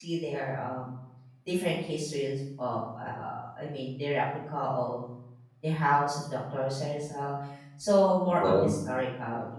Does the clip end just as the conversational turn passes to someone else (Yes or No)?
No